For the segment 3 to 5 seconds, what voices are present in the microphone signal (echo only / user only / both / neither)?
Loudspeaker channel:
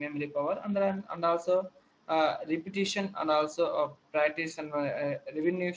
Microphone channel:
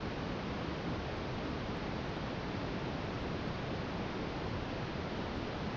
neither